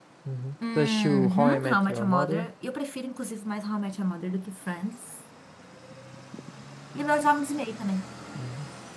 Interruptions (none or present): present